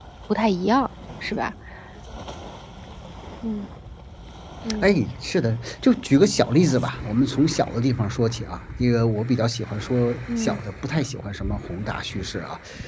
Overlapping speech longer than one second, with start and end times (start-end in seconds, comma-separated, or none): none